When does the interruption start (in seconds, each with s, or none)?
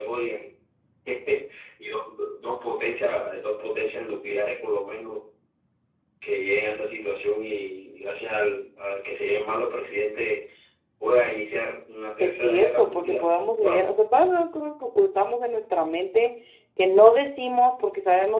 12.2 s